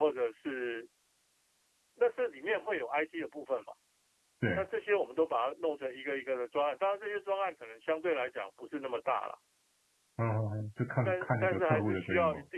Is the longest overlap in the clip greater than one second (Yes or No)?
Yes